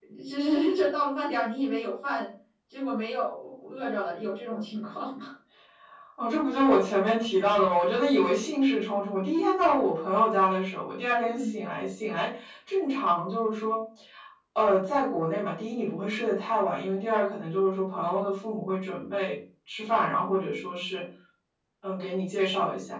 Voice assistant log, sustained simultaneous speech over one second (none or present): none